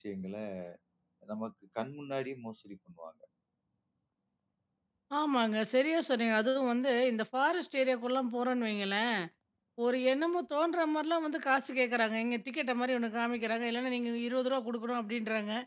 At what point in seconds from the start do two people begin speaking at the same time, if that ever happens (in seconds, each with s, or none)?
none